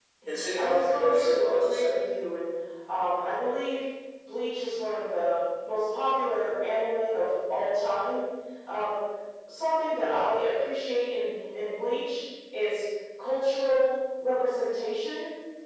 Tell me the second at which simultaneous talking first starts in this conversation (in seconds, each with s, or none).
0.6 s